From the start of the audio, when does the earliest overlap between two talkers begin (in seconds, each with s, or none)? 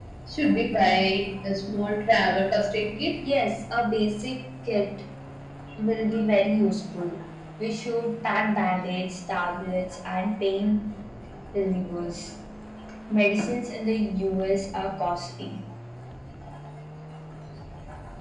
none